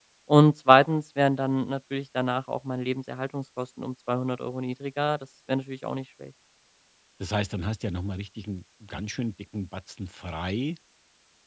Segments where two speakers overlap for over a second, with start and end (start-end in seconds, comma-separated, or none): none